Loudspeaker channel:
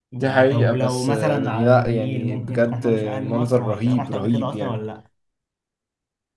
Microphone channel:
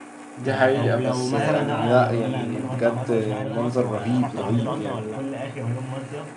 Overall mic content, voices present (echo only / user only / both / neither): both